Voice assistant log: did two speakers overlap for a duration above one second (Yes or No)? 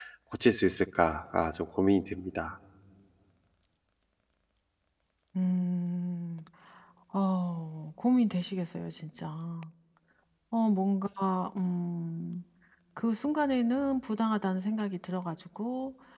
No